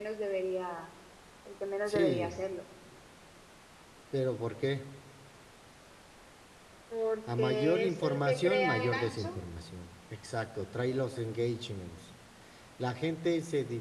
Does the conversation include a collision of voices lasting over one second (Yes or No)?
Yes